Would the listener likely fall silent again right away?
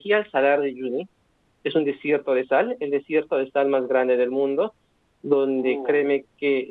Yes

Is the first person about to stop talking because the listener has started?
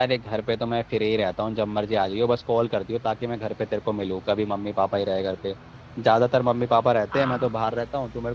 No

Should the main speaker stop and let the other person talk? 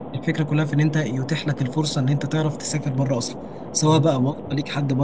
No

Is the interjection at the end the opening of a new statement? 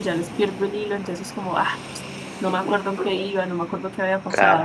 Yes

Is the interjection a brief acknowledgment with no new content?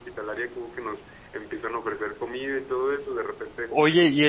No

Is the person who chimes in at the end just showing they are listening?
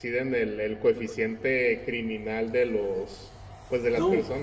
Yes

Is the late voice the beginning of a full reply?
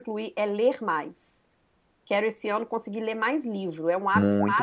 Yes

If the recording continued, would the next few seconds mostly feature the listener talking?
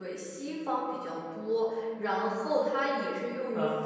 No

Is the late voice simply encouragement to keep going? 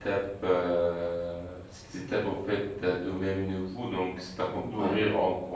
Yes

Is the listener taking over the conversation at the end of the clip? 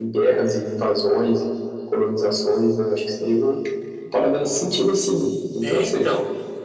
Yes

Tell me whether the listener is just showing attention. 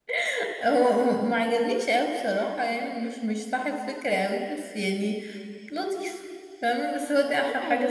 No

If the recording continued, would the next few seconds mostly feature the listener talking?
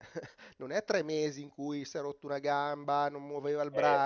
No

